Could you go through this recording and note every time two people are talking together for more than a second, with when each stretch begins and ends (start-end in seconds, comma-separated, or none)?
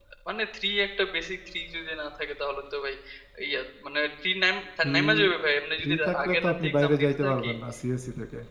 5.8-7.5